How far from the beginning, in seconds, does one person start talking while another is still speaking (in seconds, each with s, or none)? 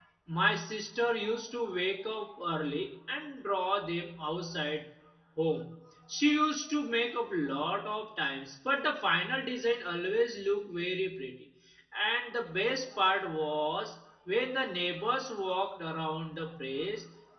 none